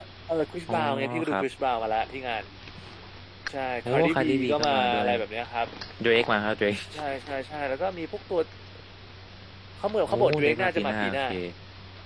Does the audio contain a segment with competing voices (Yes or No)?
Yes